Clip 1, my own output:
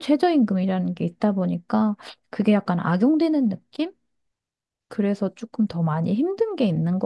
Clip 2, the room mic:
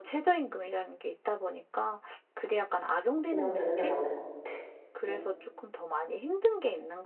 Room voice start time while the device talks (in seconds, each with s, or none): 3.3 s